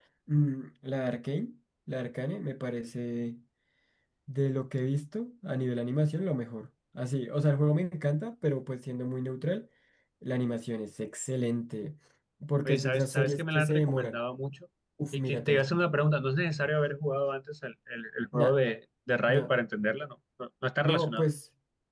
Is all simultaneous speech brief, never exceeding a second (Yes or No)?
No